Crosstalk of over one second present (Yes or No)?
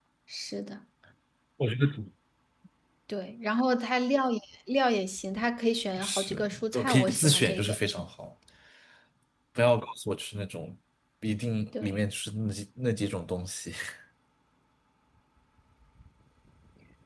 Yes